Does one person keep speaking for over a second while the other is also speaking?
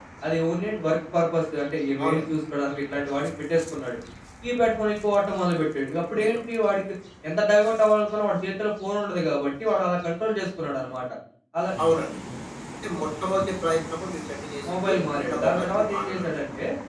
Yes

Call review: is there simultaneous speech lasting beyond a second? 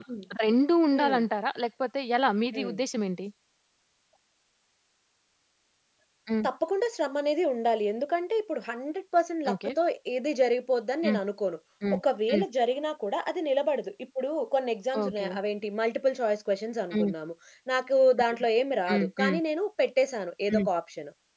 No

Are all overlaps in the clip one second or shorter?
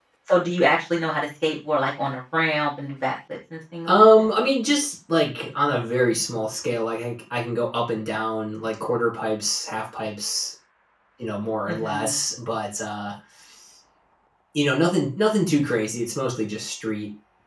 Yes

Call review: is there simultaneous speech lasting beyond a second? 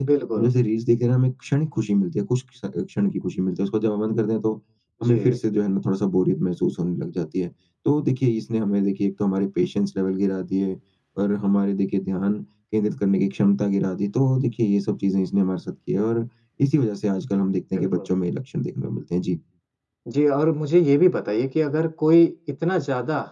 No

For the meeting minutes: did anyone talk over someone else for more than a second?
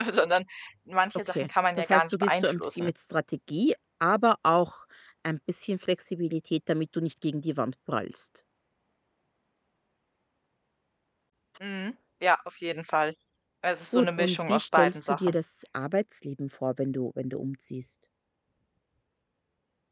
Yes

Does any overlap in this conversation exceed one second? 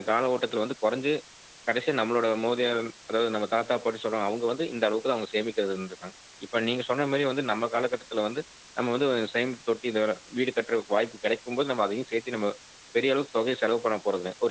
No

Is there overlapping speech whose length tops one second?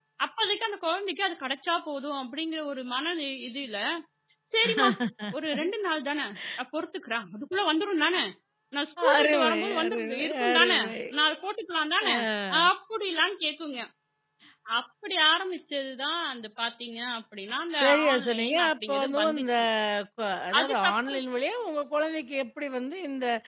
Yes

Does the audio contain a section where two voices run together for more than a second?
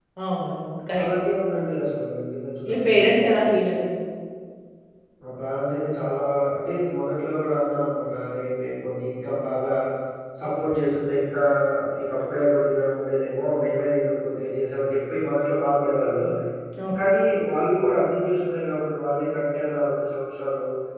No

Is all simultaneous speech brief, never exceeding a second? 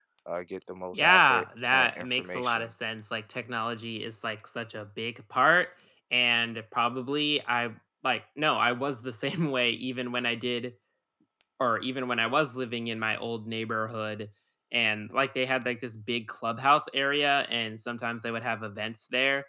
No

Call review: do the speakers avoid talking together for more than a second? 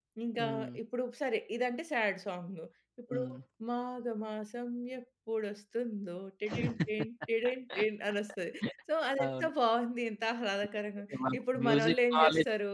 No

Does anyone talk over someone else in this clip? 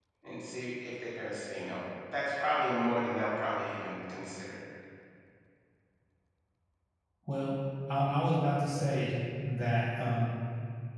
No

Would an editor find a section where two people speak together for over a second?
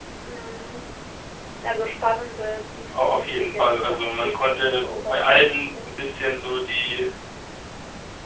Yes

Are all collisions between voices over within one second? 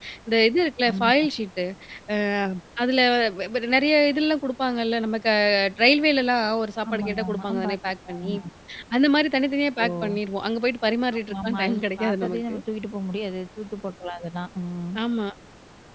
No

